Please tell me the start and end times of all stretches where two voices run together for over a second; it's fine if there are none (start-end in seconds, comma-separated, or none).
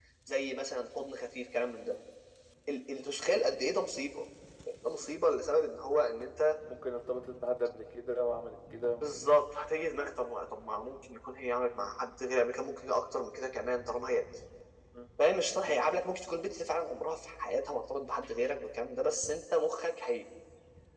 none